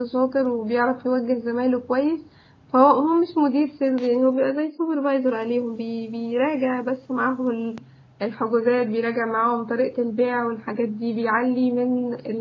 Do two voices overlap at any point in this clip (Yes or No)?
No